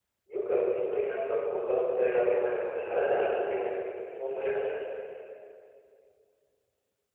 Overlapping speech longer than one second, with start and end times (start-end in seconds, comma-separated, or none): 2.2-3.8